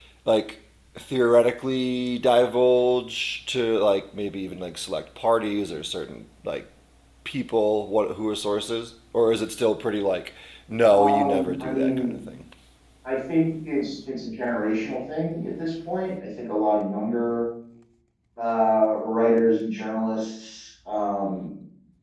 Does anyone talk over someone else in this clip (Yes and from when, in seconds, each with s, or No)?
Yes, from 10.9 s